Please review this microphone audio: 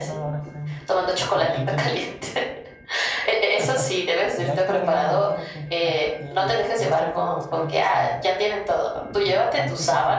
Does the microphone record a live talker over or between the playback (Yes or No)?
Yes